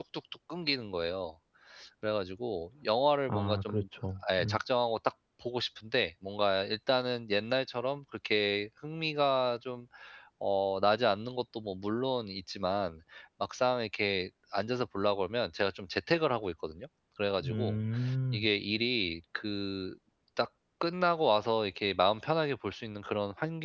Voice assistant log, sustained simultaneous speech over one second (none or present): none